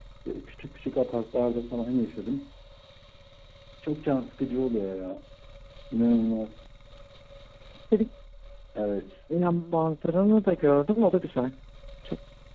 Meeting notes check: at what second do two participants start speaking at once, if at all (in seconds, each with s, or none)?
none